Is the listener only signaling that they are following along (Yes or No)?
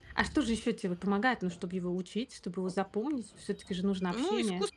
No